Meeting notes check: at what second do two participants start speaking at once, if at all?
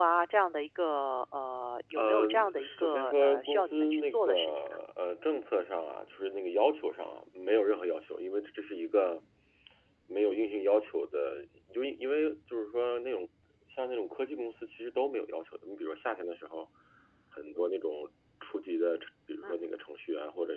2 s

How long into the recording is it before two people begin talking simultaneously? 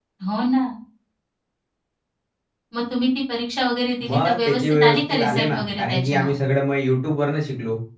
4 s

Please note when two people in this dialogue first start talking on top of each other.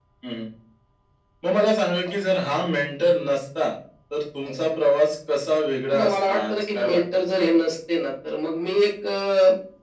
6 s

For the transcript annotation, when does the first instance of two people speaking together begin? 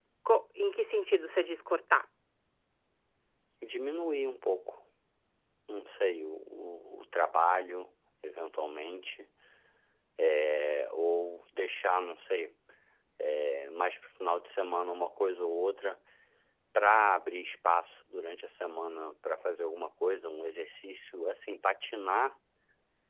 none

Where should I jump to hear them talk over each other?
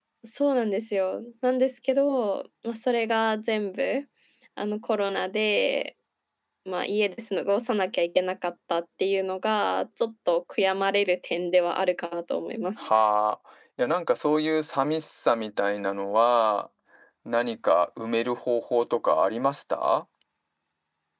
none

